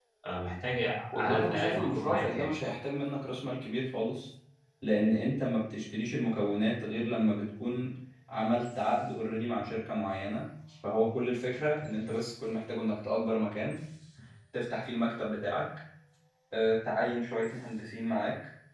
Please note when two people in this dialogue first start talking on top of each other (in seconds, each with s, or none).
1.2 s